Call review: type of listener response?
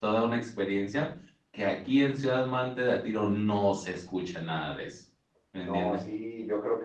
taking over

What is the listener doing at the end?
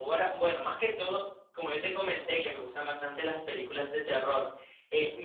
listening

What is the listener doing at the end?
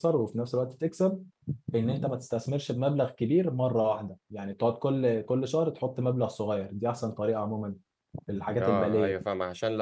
taking over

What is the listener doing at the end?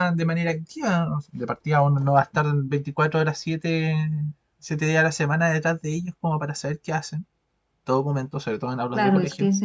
taking over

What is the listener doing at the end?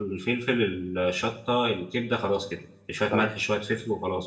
listening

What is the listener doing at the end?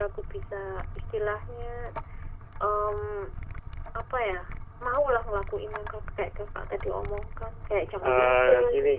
taking over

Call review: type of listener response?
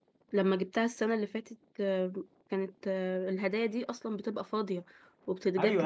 taking over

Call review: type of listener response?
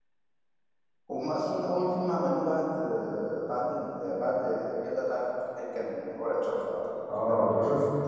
taking over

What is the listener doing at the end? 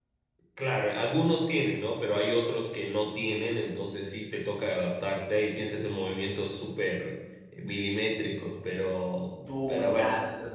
taking over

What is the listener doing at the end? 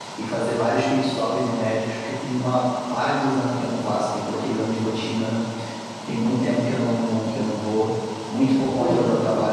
listening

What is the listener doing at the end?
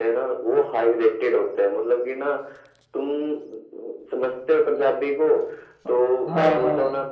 listening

